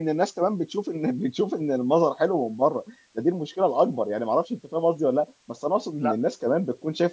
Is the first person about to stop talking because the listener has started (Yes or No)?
No